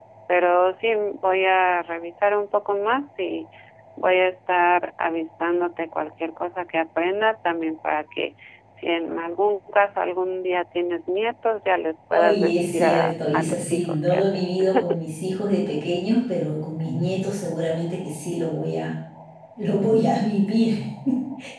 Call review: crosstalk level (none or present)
present